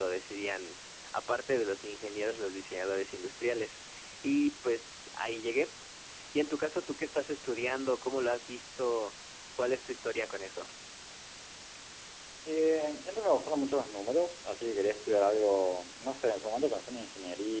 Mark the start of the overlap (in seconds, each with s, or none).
none